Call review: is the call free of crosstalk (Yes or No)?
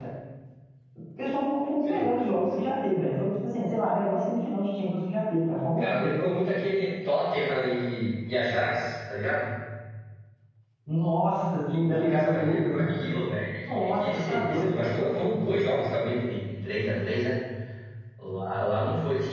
No